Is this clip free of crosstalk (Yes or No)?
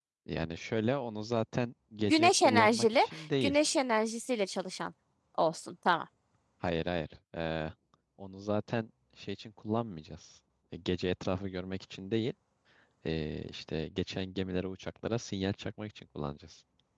No